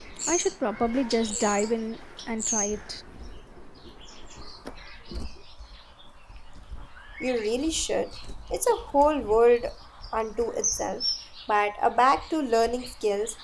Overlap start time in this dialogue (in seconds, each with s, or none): none